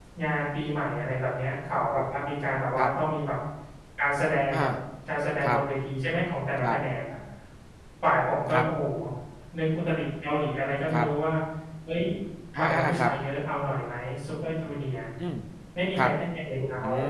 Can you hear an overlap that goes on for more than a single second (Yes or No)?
No